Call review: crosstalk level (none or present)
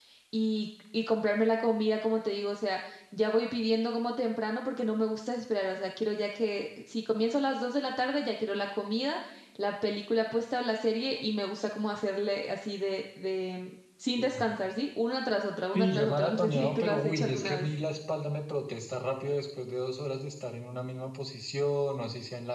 present